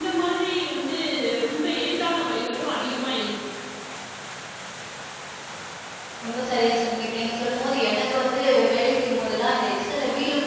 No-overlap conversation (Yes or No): Yes